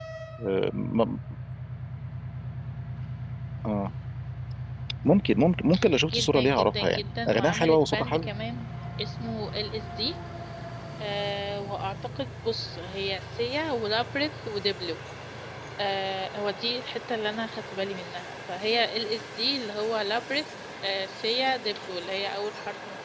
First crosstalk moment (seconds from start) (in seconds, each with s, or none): 6.1 s